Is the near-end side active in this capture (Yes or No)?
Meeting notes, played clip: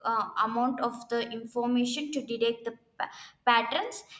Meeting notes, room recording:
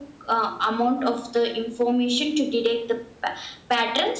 No